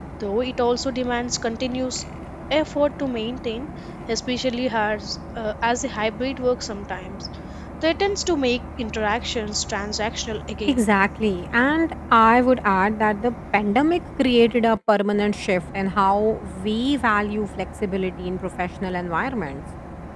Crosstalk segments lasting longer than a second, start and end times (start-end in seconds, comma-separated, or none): none